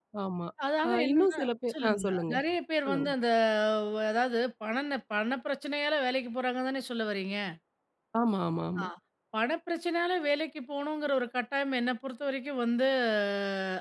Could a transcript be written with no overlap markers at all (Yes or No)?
No